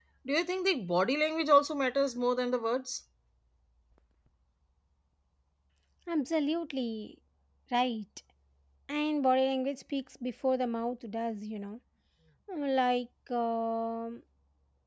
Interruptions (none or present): none